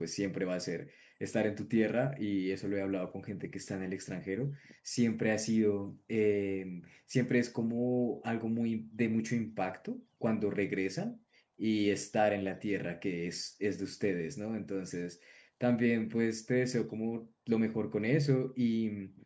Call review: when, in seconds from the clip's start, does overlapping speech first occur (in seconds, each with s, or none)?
none